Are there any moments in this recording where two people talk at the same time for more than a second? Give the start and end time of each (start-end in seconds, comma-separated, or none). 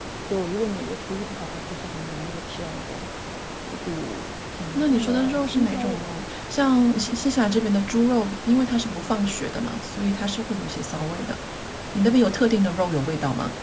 4.8-6.0